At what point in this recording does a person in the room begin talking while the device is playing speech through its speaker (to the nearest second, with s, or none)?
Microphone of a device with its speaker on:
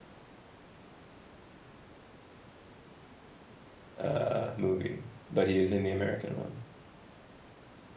4 s